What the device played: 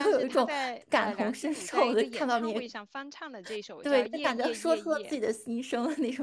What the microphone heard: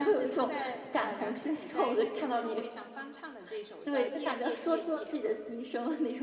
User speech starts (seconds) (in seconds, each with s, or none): none